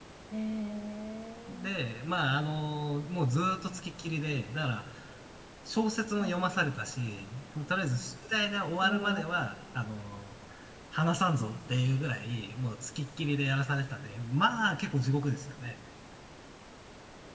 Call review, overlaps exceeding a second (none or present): none